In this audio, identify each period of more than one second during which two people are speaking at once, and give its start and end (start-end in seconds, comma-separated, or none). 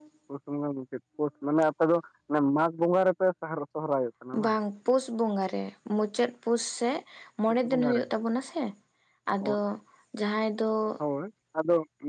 none